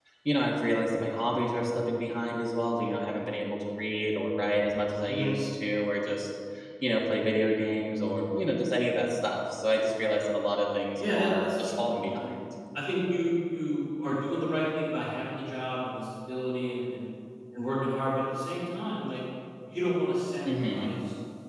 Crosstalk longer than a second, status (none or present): present